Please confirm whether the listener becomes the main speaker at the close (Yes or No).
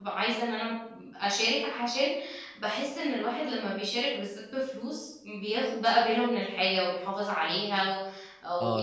Yes